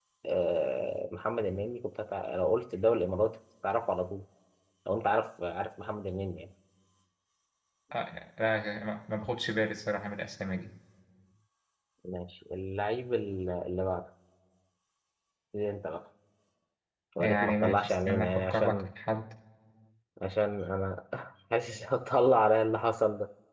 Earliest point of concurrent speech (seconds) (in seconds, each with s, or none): 17.2 s